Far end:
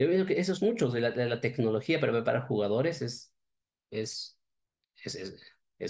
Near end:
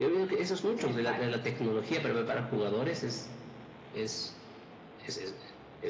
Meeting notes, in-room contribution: present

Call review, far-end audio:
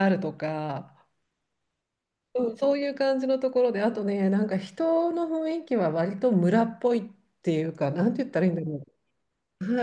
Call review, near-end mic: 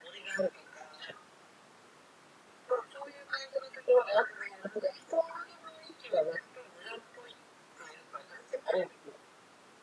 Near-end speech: none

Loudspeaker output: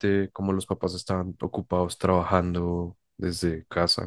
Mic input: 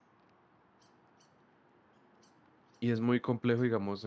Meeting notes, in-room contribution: present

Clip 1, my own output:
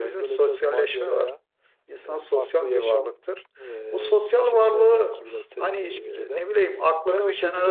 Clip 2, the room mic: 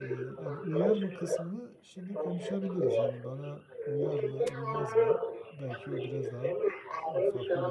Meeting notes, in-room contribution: present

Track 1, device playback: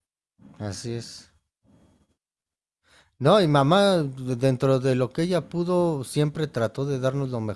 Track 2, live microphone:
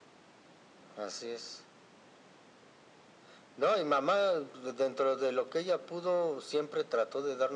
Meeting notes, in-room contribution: none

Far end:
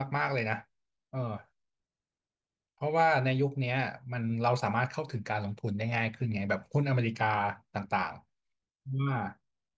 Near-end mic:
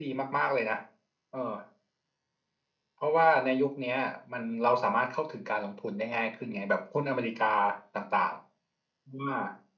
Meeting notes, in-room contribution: none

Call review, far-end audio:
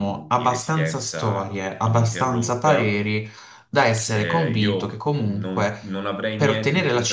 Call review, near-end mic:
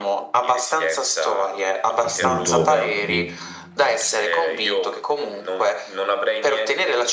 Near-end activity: present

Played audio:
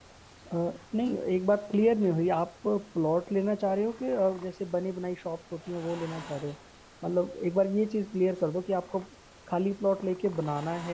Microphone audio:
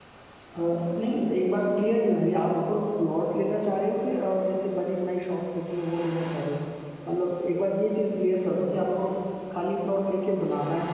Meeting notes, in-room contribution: none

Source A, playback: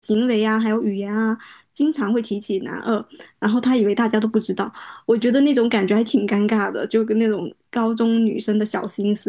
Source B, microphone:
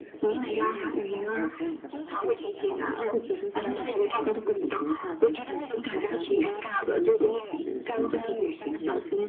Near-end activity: present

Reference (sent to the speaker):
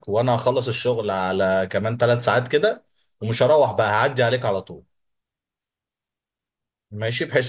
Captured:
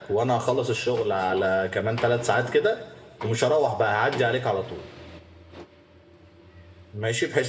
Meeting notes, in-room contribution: none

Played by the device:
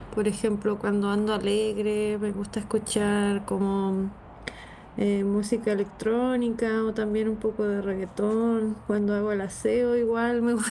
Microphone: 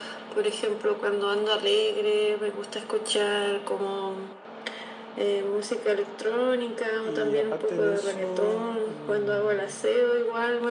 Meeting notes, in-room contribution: present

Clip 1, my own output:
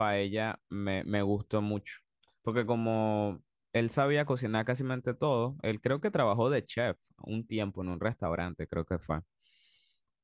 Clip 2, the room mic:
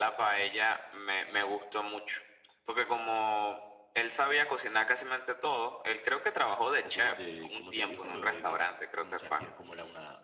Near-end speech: present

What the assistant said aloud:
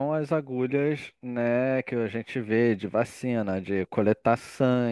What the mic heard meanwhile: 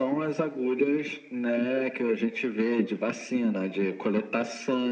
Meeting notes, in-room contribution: none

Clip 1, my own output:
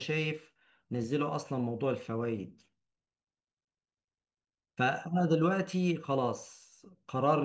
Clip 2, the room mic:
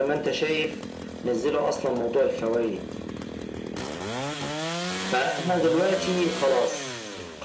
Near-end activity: none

